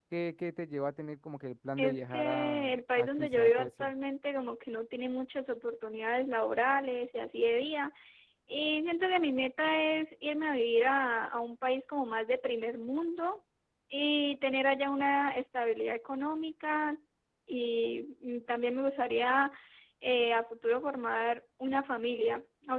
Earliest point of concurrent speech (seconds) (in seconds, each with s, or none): 1.8 s